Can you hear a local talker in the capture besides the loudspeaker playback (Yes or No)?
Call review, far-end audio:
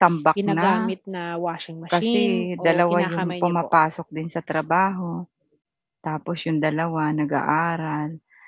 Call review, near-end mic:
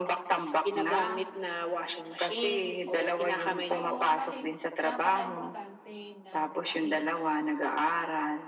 Yes